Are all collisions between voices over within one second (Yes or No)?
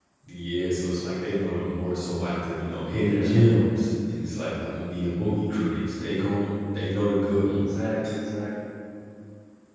Yes